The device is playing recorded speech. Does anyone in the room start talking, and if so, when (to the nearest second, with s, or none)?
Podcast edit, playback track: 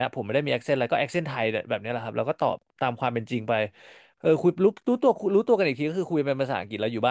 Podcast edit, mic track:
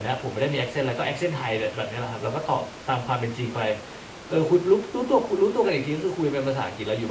none